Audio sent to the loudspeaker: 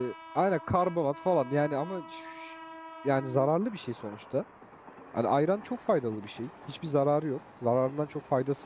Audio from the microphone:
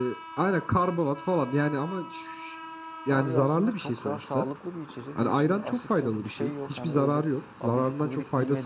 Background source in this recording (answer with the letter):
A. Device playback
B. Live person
B